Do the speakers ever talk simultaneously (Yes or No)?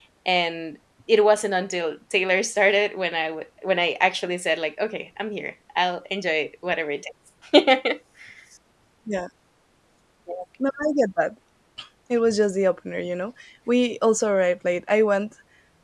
No